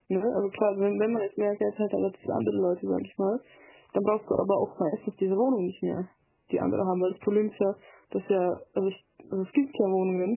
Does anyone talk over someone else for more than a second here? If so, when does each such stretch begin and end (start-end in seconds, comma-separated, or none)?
none